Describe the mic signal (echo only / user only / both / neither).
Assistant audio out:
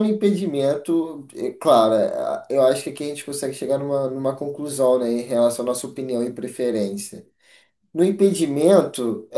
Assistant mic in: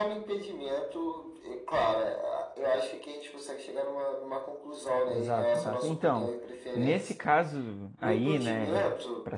both